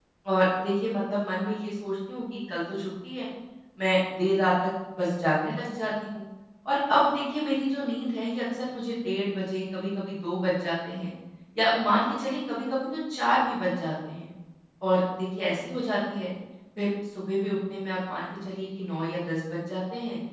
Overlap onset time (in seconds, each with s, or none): none